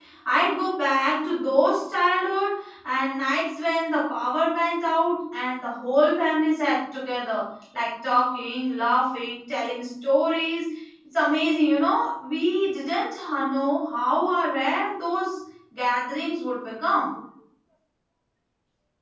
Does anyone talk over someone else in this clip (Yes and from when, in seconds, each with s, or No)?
No